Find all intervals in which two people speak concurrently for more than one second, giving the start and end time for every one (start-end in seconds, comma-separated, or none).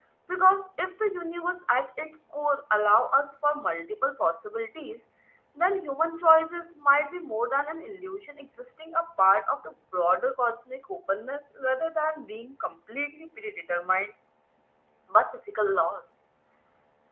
none